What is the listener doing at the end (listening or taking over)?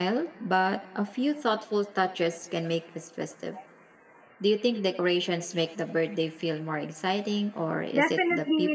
taking over